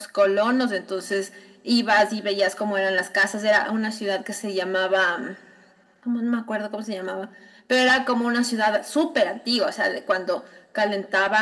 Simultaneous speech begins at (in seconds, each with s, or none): none